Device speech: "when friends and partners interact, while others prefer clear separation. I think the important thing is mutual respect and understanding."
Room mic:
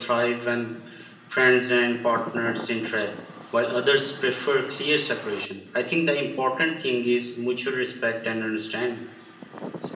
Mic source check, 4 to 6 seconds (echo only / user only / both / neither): echo only